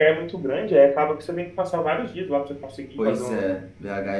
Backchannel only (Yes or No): No